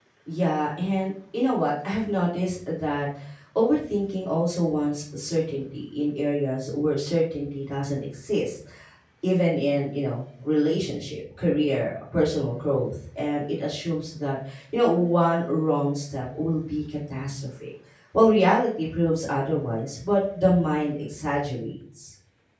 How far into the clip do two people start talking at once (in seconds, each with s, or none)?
none